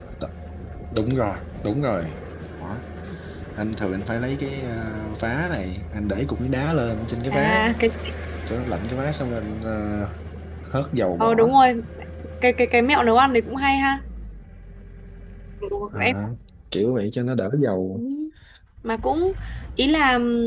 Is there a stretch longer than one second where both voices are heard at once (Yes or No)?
No